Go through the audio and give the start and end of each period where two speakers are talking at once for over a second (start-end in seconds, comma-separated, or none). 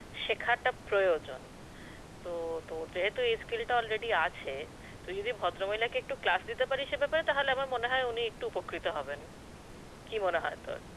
none